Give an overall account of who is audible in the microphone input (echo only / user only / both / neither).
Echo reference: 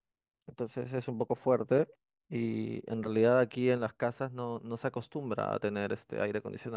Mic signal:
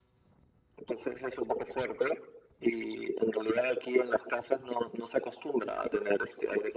echo only